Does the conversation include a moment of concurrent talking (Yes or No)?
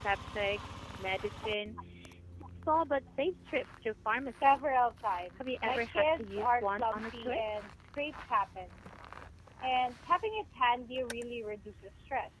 Yes